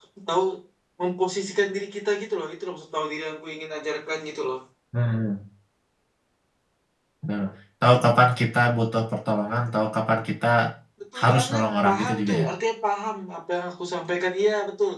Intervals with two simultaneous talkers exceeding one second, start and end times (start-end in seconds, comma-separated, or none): 11.2-12.5